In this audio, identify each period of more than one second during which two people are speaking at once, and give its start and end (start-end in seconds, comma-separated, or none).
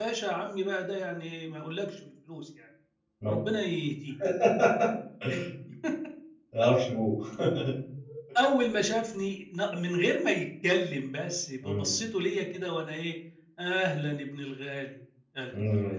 none